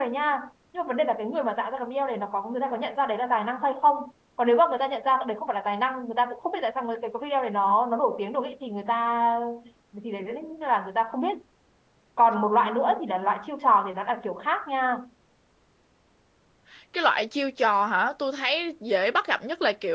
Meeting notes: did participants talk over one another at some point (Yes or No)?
No